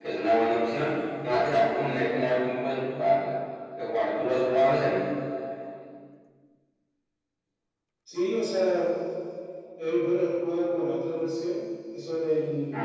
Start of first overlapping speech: none

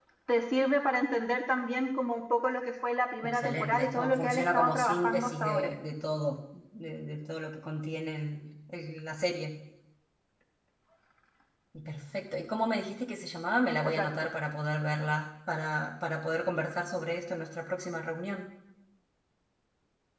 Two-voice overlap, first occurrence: 3.2 s

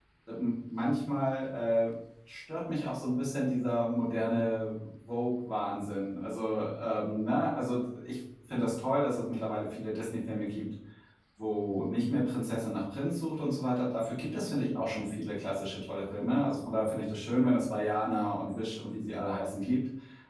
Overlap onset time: none

